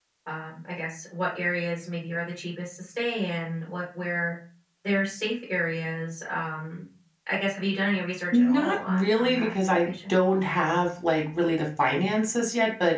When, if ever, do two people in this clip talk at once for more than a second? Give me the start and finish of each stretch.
8.3-10.1

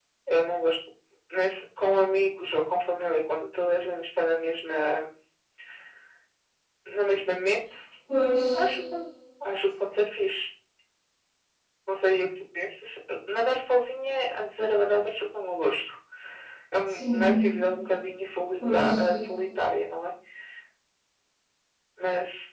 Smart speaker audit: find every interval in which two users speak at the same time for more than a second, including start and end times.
none

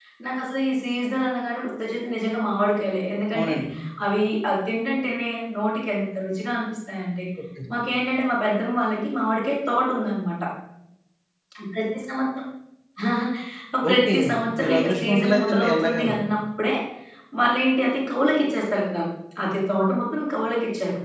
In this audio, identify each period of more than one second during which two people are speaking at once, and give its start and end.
14.6-16.2

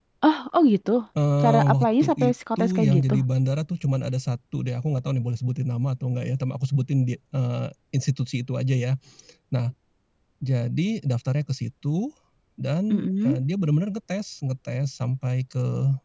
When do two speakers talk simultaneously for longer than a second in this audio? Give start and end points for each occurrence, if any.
1.4-3.2

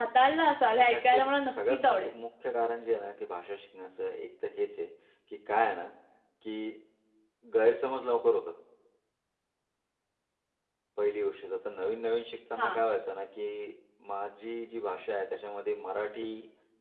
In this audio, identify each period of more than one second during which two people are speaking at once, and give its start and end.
0.7-2.1

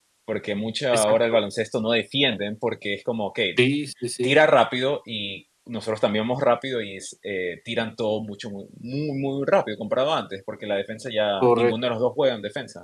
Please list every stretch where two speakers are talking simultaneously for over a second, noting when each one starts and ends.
none

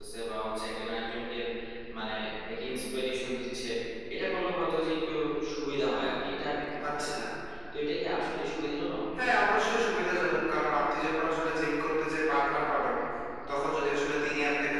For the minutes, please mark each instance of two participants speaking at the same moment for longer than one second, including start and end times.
none

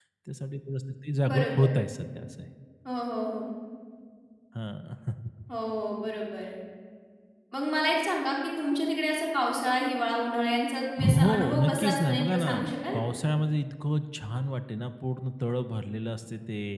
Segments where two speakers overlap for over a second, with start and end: 11.0-12.5

